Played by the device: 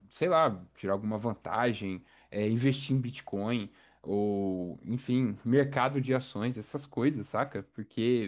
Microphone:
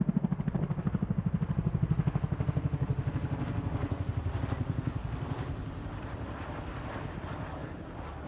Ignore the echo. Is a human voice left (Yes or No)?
No